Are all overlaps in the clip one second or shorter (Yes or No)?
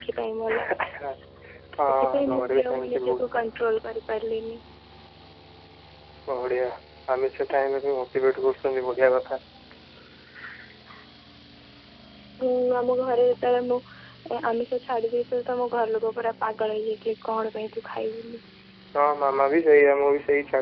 No